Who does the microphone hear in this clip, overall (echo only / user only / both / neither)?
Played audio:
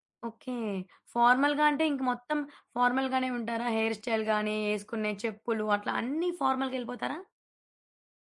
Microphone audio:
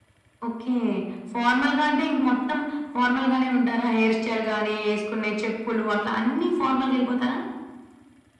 echo only